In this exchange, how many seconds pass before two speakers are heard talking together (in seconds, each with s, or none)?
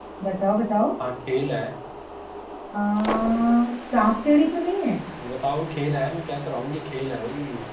none